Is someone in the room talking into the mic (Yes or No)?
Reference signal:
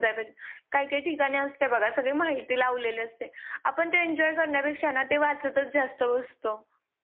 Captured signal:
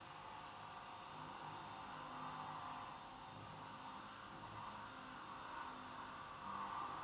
No